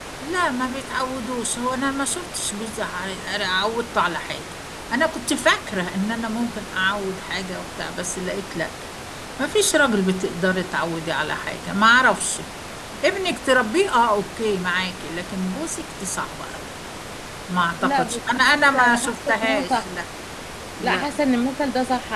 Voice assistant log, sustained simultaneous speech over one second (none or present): present